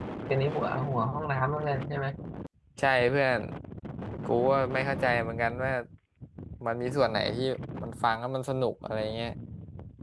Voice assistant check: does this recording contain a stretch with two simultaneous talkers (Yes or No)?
No